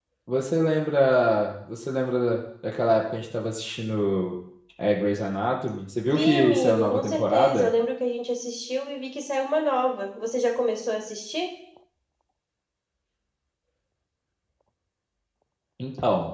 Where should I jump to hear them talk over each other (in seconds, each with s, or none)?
6.0 s